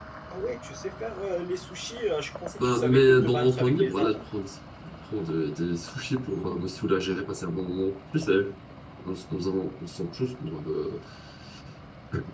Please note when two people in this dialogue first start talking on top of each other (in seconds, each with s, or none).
2.6 s